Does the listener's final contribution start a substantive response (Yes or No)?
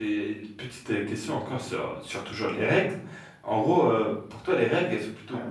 No